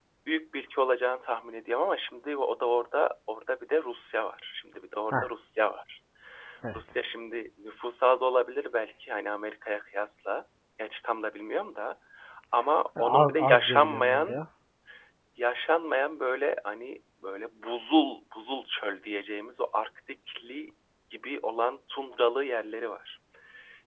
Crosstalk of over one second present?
Yes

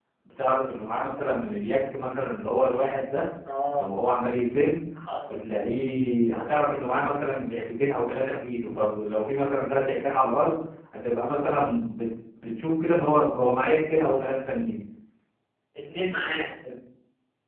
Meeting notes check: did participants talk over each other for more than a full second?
No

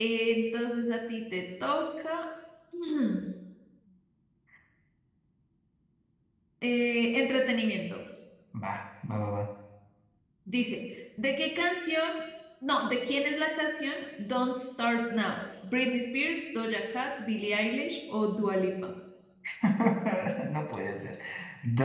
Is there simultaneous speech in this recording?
No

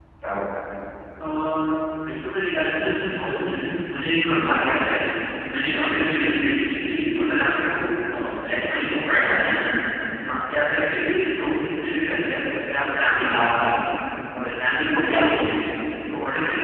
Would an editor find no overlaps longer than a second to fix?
Yes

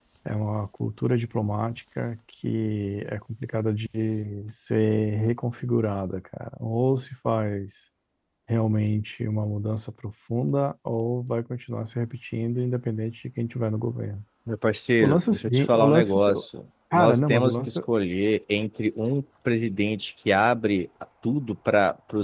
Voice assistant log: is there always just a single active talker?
No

